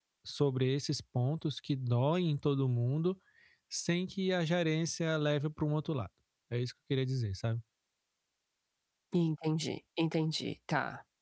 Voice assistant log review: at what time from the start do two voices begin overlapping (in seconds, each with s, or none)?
none